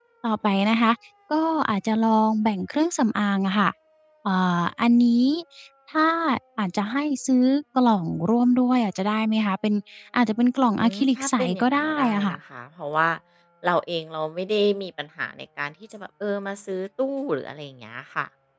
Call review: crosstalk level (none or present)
present